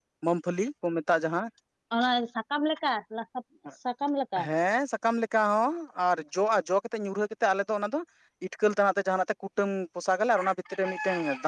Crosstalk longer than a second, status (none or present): none